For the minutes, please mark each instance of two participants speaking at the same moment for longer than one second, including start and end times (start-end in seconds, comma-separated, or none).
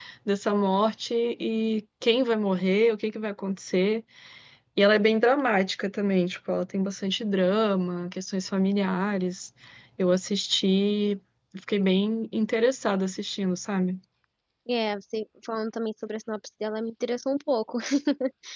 none